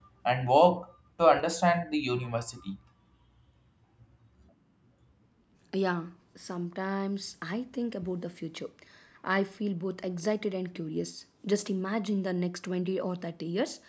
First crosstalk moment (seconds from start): none

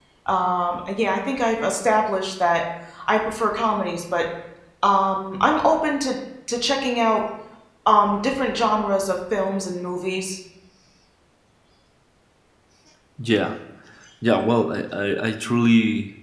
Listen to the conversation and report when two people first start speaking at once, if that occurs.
none

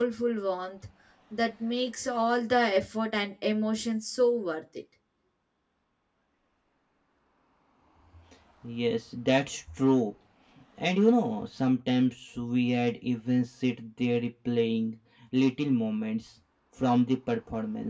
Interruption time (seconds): none

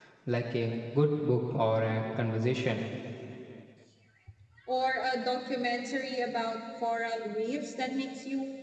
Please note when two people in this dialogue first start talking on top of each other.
none

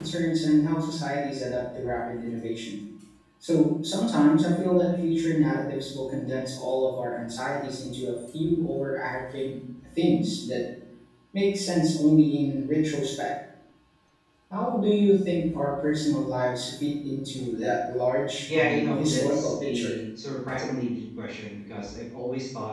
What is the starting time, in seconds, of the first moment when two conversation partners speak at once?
18.4 s

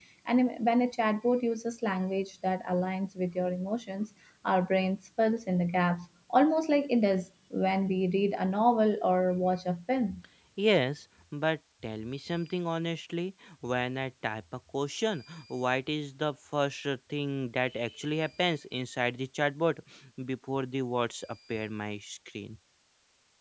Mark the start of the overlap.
none

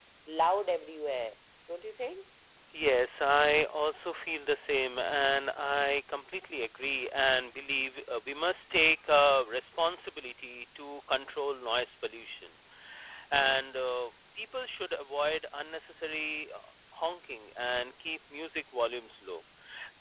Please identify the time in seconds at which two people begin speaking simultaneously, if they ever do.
none

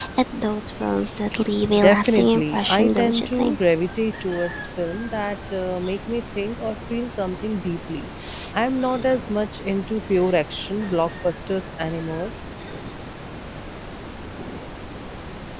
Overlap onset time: 1.8 s

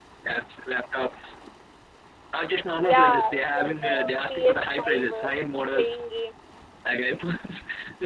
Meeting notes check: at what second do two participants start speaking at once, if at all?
2.8 s

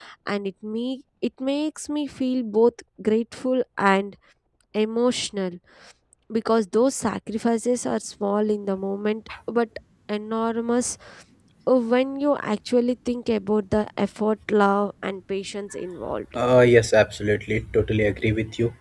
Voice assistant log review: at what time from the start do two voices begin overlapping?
none

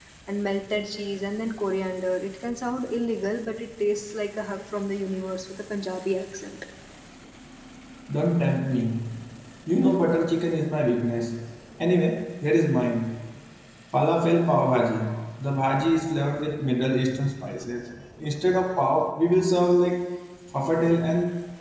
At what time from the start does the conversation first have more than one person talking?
none

